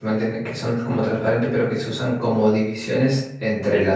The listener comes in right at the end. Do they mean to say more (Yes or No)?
No